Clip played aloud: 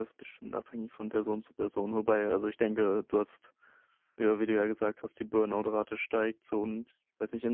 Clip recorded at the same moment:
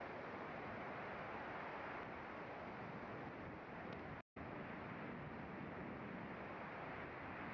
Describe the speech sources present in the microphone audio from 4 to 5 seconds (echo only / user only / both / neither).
neither